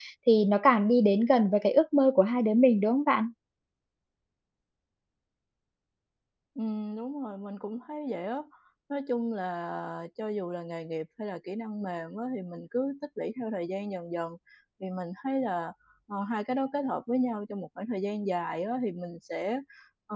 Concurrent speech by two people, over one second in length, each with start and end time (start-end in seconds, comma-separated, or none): none